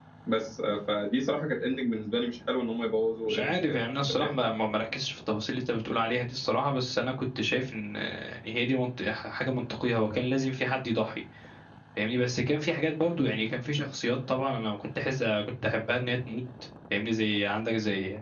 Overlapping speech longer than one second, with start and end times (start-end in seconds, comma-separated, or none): 3.2-4.5